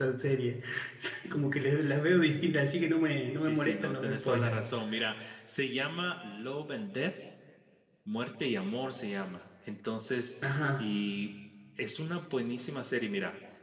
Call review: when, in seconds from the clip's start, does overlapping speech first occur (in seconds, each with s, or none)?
3.4 s